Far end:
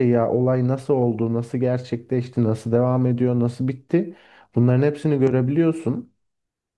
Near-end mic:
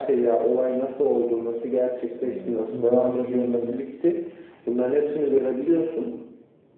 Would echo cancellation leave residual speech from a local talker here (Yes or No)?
Yes